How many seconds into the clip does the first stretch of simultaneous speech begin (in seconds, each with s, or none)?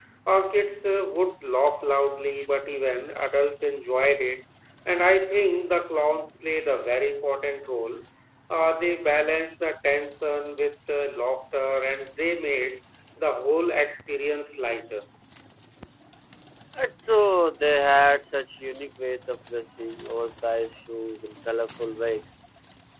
none